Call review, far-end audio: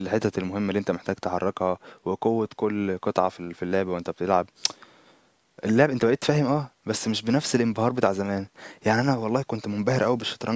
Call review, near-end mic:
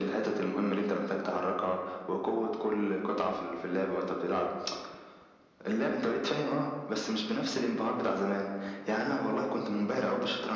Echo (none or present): present